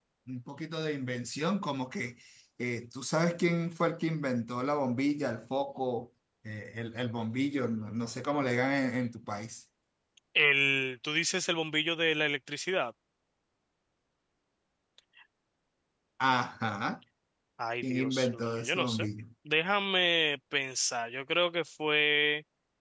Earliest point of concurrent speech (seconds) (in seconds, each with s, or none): 17.8 s